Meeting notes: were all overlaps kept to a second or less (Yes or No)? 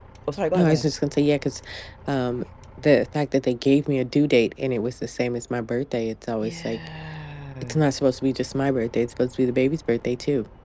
Yes